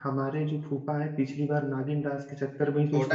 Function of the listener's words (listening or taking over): taking over